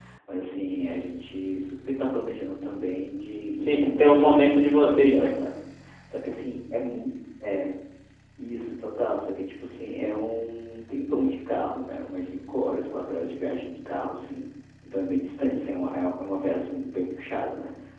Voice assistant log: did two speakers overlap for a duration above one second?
Yes, from 3.6 s

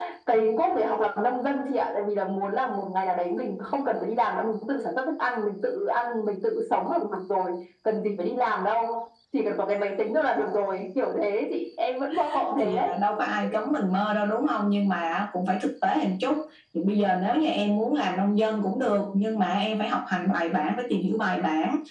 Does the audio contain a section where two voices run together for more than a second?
No

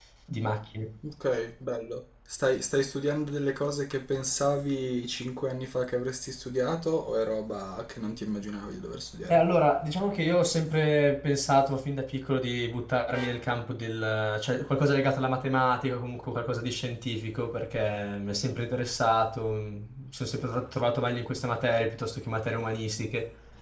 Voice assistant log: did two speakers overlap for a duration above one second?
No

